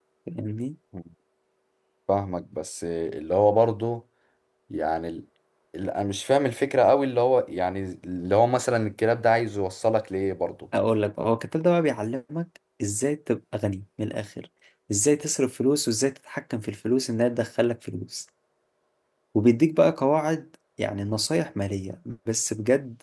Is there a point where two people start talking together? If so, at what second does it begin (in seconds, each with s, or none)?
none